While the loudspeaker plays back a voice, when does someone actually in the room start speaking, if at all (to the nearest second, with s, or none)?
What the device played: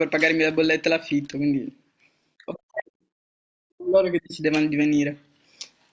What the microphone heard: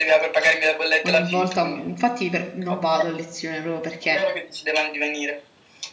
1 s